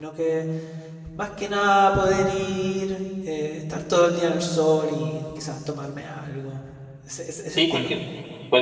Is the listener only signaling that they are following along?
No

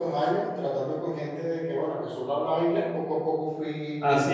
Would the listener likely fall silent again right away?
No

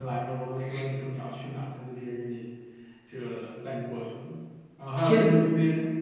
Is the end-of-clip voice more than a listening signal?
No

